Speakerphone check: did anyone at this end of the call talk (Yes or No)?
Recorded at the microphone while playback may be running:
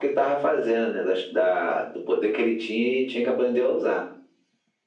No